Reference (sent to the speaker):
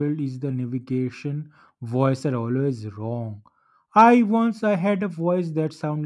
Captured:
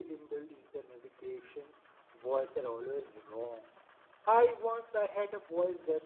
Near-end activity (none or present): none